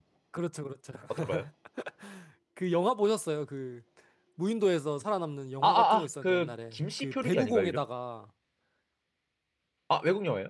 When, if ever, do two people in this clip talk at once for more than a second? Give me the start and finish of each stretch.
5.6-7.8

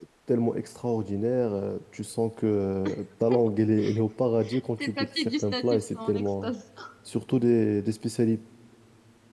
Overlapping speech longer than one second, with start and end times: 4.8-6.5

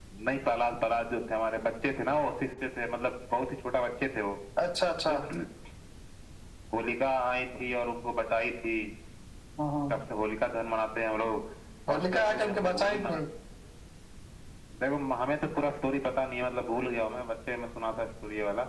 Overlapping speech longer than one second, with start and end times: 11.9-13.2

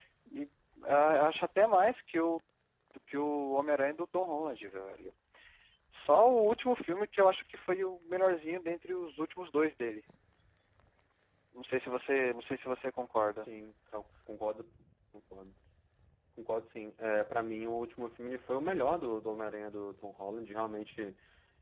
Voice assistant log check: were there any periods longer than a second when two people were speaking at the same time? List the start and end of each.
none

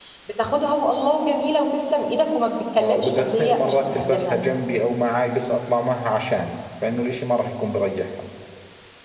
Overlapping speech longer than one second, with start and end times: 2.8-4.4

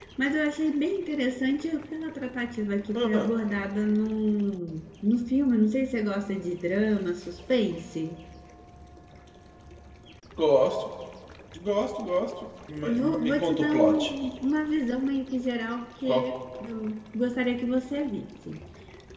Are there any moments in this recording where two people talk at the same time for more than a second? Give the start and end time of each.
12.8-14.1

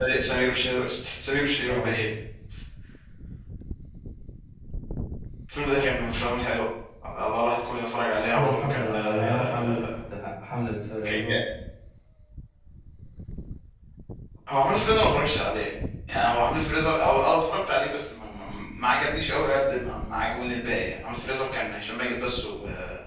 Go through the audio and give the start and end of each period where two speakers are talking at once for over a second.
8.3-9.8

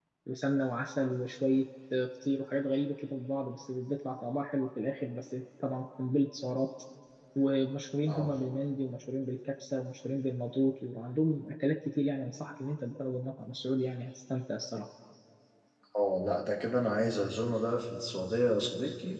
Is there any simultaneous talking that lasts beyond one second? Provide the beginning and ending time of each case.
none

